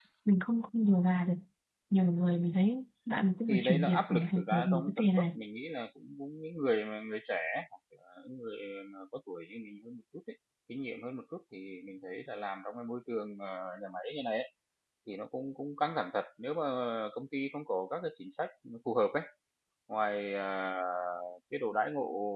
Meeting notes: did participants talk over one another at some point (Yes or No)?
Yes